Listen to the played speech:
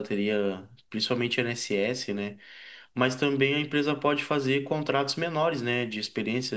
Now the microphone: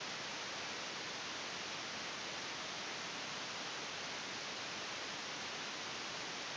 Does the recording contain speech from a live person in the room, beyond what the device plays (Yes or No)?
No